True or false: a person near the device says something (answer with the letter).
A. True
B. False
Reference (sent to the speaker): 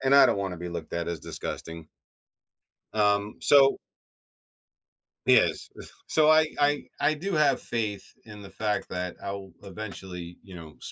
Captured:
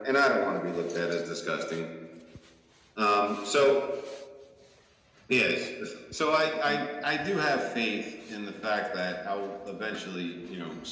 B